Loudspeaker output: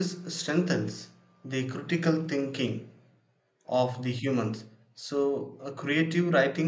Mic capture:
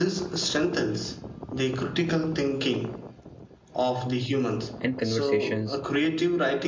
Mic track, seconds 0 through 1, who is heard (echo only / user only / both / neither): echo only